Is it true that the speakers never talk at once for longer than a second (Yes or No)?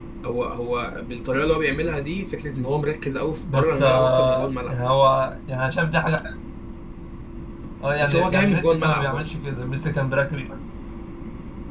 No